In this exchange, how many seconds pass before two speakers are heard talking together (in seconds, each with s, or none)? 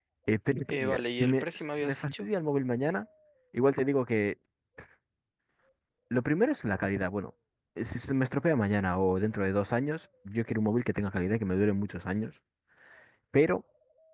0.7 s